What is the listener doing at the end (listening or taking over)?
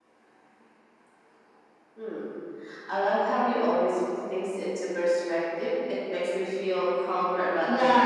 taking over